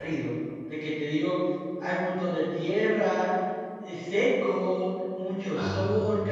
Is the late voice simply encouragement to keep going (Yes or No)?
Yes